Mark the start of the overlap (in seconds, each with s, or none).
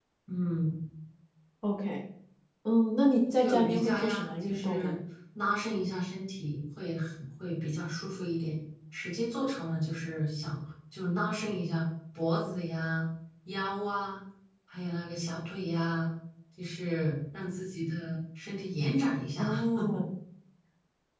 3.4 s